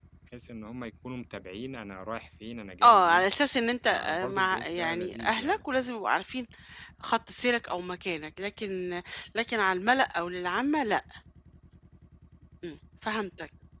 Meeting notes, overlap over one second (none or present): present